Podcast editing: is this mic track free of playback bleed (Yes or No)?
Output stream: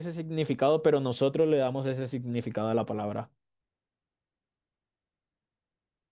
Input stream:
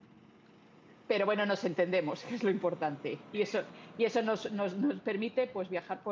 Yes